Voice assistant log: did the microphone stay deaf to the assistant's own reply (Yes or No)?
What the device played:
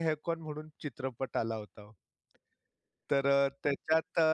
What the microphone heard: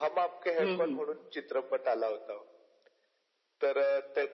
No